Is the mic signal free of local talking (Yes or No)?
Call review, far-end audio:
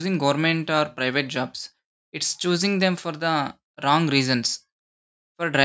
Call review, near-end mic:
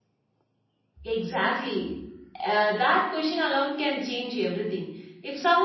No